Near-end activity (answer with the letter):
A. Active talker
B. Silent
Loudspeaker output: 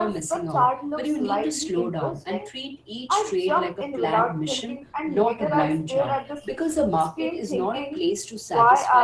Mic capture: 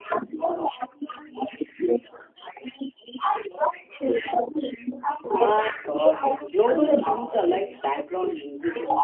A